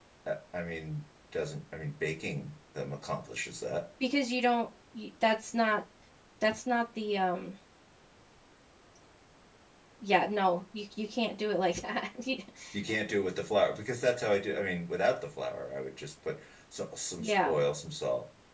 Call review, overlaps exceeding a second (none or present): none